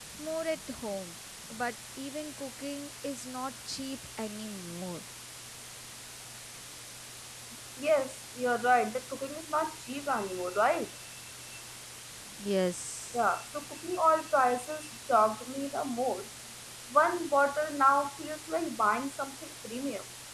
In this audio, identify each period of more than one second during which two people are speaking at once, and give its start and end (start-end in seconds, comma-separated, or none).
none